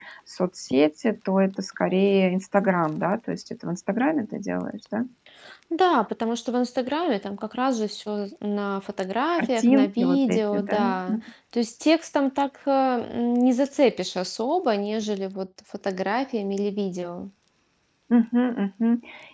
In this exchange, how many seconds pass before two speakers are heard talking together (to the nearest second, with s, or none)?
9 s